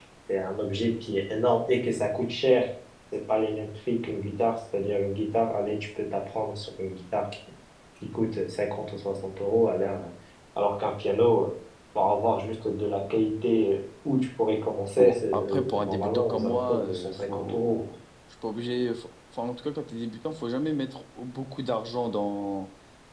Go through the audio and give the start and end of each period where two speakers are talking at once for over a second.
15.0-17.8

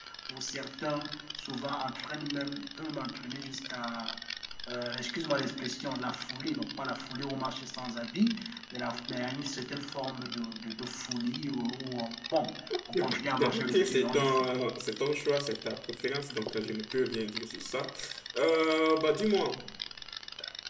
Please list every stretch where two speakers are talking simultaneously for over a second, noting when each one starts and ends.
12.9-14.5

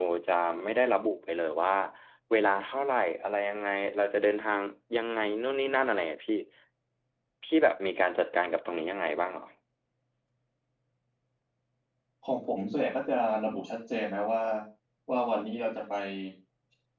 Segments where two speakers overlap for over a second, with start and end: none

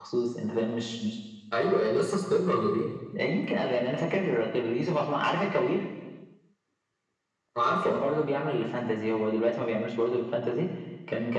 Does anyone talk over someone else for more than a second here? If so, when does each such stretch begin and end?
none

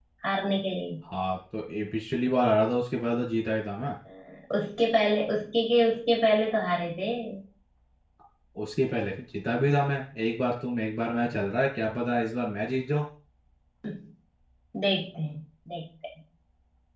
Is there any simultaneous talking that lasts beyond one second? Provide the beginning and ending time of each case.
none

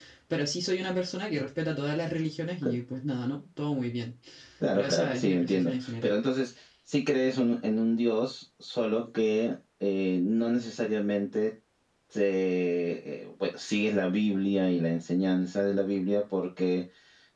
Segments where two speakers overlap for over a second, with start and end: 4.7-6.1

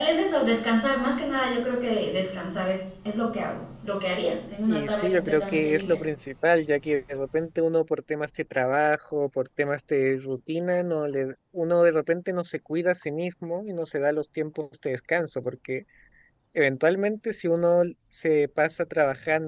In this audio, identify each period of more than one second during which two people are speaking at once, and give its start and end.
4.7-6.0

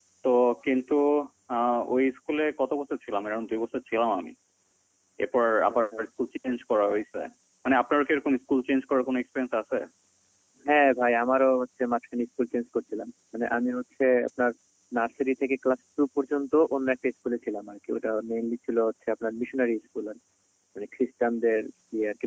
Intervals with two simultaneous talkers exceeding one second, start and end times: none

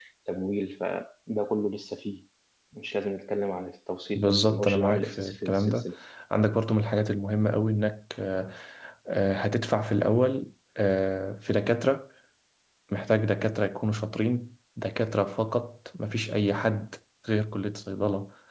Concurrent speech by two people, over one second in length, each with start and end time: 4.2-5.8

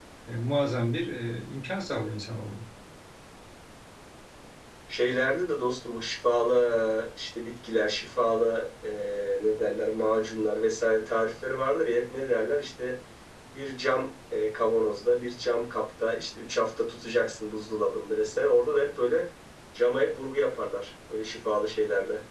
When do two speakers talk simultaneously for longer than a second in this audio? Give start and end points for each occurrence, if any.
none

